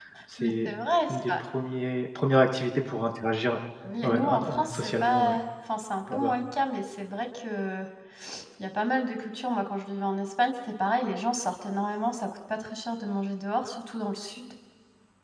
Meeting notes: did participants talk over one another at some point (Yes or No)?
Yes